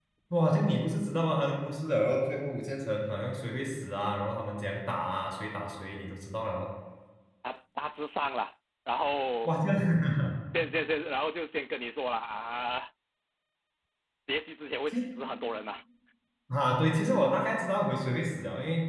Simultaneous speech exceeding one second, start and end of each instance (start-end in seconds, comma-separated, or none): none